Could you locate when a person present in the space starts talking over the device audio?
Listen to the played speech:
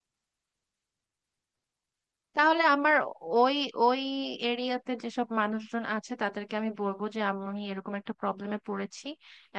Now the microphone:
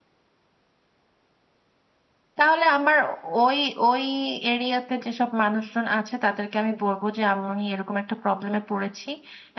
none

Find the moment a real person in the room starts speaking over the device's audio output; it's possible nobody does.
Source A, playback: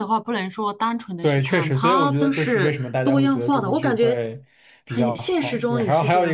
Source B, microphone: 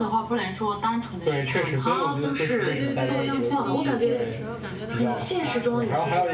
2.6 s

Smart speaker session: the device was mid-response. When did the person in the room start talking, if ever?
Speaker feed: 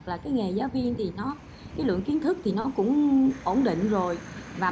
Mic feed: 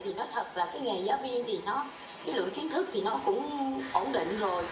none

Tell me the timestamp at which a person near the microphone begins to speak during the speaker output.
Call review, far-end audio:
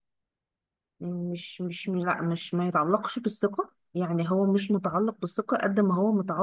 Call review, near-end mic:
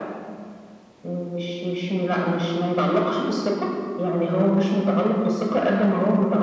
none

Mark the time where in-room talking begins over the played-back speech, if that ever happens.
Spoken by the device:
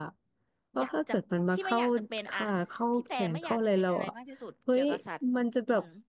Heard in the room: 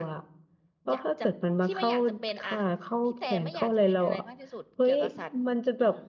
none

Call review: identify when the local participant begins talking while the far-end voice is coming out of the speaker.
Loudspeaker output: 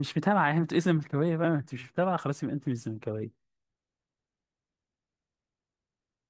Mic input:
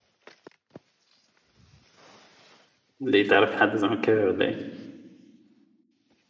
3.0 s

